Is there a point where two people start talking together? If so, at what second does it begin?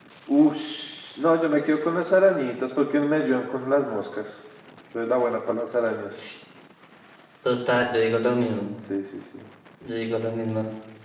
none

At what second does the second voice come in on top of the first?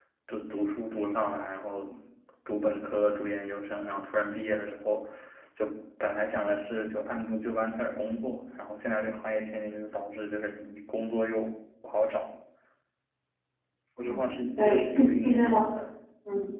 14.1 s

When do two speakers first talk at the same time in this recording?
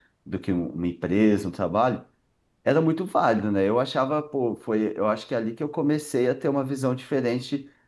none

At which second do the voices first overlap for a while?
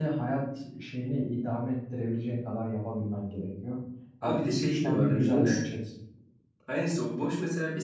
4.2 s

